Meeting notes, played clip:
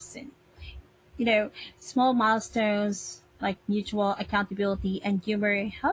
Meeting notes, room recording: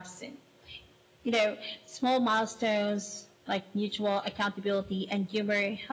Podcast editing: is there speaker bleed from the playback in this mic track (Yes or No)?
Yes